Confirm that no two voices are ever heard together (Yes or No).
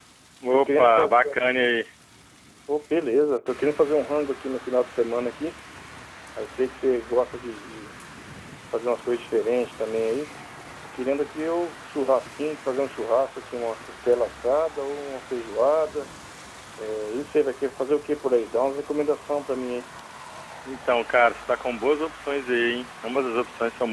No